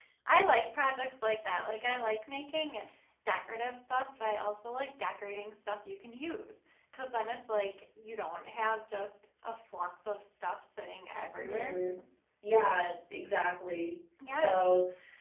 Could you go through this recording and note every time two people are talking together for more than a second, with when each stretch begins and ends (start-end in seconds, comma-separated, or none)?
none